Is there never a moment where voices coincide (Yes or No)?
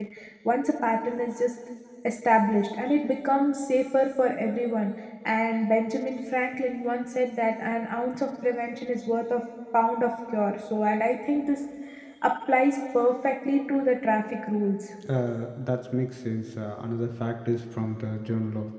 Yes